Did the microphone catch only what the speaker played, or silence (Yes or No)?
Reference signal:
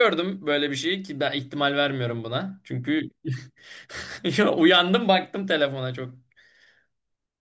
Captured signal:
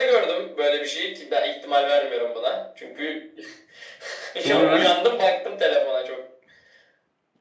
No